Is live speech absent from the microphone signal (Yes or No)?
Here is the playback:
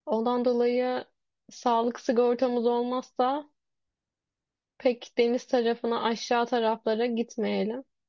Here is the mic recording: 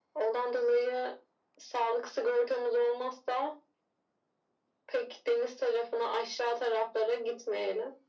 Yes